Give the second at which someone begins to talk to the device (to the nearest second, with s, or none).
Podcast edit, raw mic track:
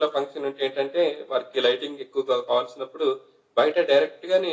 none